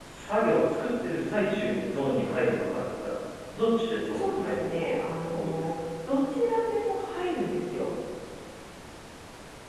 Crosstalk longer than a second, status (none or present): present